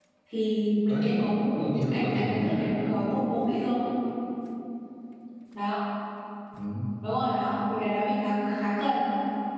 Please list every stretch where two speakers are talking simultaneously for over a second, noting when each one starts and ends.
1.6-2.8

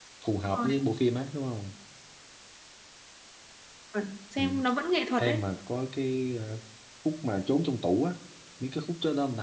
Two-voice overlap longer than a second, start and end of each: none

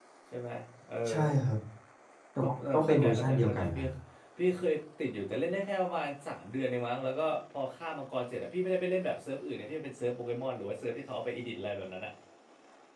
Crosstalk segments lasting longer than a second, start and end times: 2.4-3.8

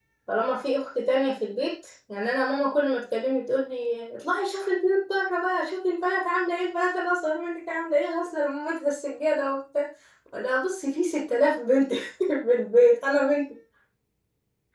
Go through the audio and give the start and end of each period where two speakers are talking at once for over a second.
none

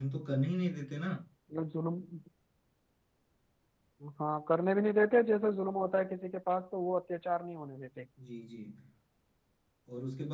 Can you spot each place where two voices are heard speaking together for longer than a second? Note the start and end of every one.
none

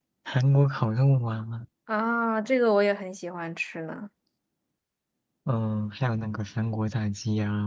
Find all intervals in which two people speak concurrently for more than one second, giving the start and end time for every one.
none

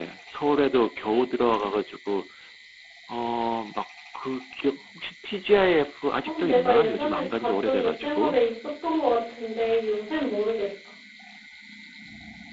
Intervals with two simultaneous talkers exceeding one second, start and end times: 6.2-8.3

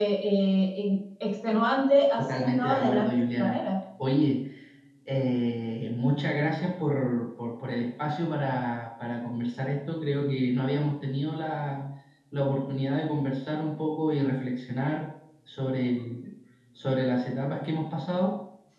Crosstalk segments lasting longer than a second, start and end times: 2.2-3.6

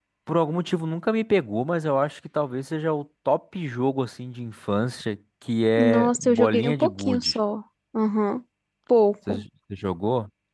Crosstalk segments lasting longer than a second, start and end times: 5.8-7.4

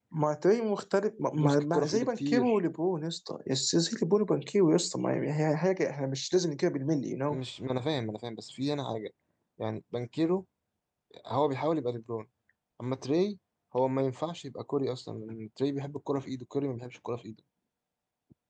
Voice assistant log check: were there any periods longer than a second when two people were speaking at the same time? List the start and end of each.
1.4-2.6

